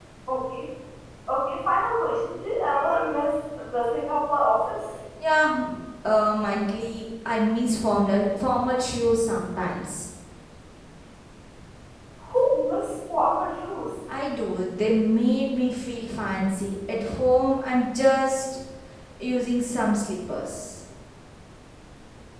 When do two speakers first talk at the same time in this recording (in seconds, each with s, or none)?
none